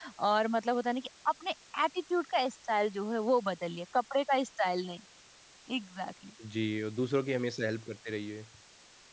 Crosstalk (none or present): none